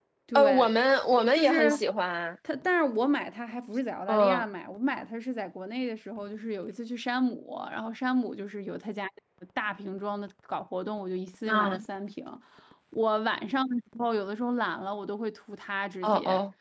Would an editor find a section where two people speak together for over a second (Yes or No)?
No